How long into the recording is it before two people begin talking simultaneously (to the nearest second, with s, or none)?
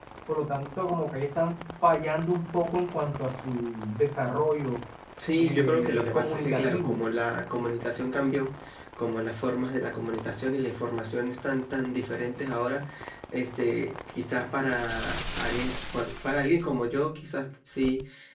5 s